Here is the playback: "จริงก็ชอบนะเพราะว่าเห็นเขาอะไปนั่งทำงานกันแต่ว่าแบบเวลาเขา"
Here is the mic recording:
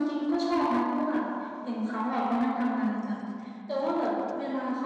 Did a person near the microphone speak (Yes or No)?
No